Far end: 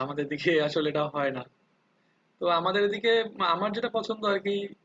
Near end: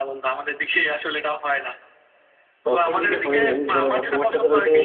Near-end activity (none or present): present